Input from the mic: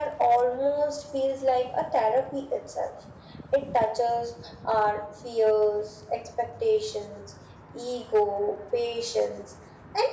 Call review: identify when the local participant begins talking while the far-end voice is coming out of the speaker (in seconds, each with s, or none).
none